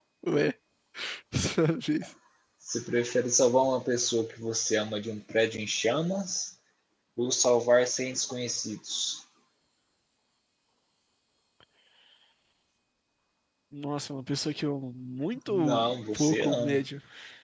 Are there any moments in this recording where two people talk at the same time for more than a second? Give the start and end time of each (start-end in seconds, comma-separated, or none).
15.5-16.8